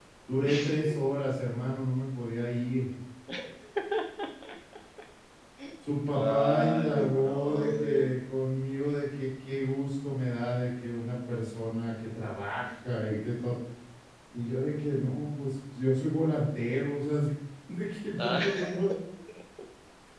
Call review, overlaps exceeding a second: present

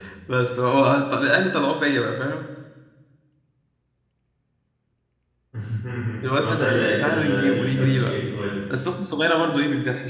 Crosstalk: present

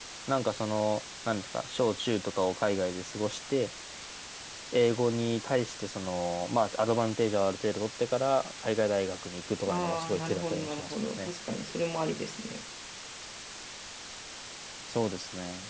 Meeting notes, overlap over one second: present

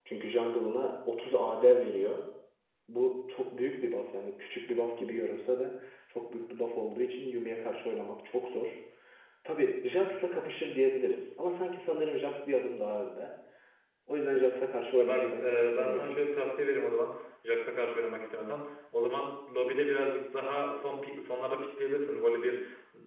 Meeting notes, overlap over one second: present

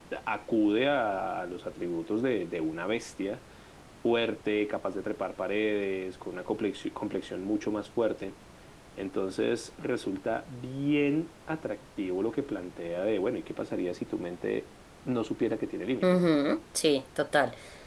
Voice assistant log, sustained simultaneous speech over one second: none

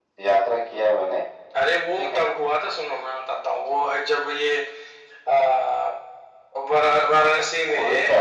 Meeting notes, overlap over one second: none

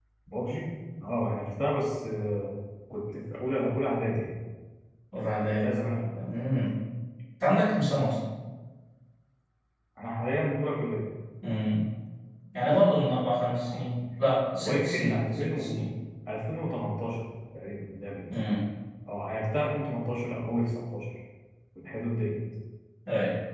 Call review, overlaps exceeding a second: present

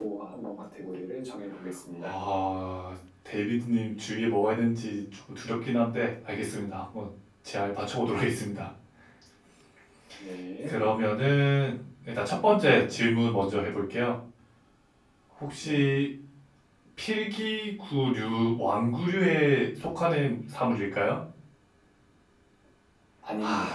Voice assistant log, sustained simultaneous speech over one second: none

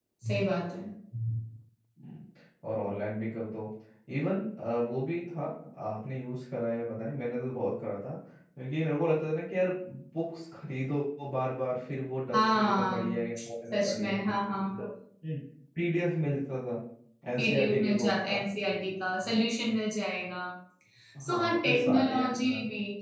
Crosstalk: present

